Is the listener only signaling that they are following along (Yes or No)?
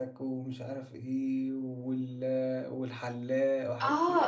No